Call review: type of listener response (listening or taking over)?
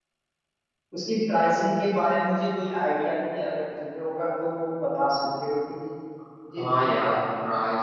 taking over